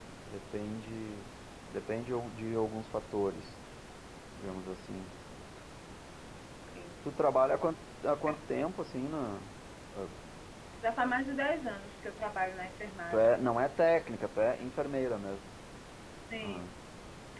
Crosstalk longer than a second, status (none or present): none